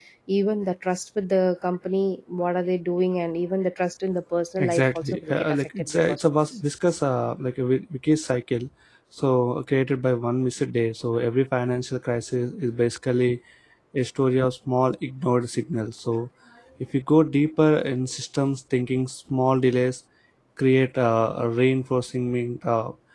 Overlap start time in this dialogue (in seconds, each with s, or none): 4.6 s